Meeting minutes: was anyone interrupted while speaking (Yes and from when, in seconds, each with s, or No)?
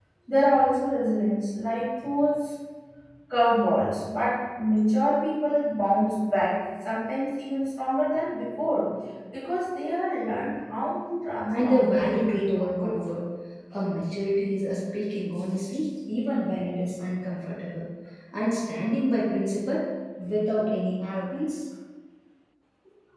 Yes, from 11.5 s